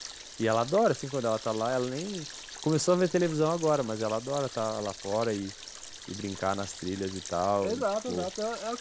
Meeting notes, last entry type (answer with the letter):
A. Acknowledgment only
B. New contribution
B